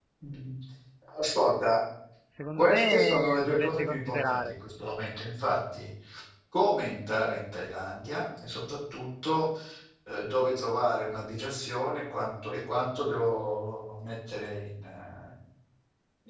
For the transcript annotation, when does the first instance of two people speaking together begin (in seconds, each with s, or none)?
2.5 s